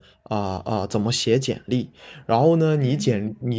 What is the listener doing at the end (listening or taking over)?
listening